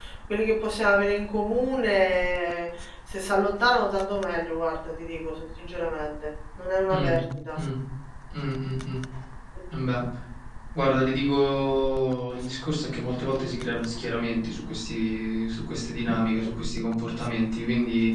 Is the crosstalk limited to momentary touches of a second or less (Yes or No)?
Yes